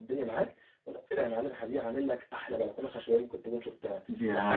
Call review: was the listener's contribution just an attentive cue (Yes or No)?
No